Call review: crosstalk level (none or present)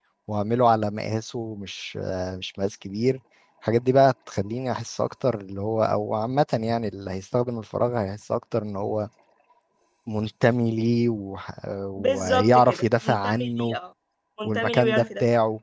present